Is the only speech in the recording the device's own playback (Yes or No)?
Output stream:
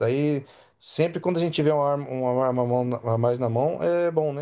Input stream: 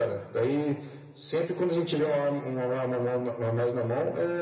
Yes